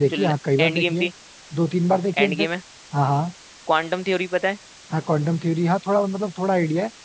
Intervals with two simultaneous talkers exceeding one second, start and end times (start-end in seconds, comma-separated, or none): none